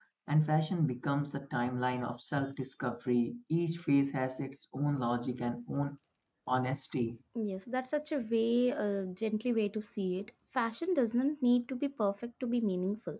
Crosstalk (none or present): none